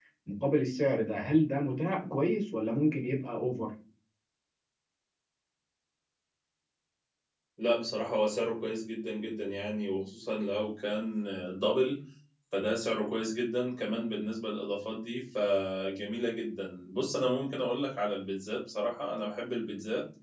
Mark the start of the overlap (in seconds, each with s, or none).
none